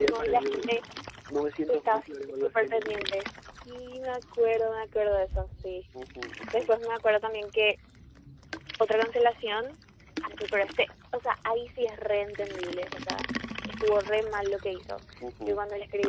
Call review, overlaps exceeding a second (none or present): present